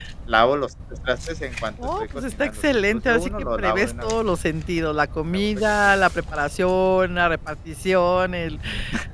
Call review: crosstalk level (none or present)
present